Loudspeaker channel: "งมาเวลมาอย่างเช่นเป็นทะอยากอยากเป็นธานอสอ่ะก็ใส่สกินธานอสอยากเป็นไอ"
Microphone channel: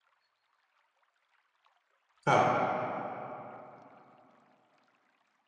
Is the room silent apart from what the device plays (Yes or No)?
No